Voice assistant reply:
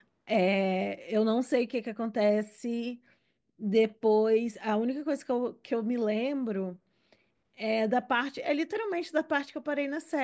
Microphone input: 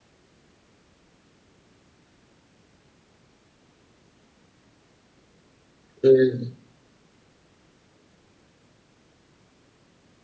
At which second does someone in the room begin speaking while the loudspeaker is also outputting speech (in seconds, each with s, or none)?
6.0 s